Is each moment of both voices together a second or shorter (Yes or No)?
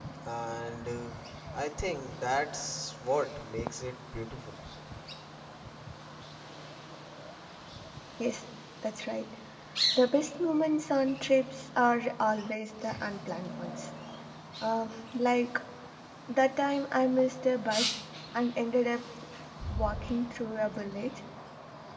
Yes